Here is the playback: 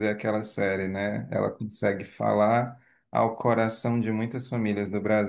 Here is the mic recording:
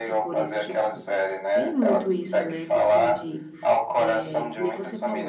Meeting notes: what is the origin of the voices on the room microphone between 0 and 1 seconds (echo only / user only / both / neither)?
both